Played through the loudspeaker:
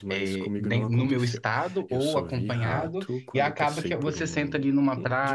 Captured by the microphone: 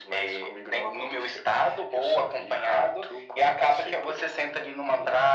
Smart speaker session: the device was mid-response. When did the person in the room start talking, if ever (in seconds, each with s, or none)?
none